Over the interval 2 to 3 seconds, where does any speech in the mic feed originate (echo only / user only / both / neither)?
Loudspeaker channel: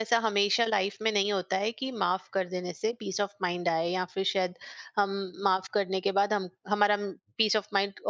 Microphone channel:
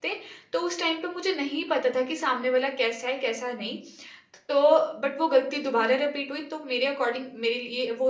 user only